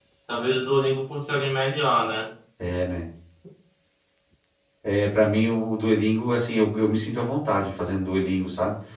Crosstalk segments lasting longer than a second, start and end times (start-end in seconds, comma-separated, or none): none